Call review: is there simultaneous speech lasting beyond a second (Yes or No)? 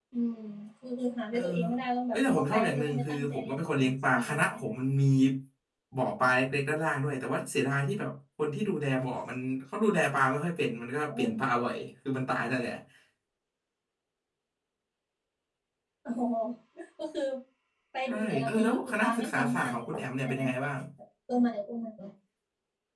Yes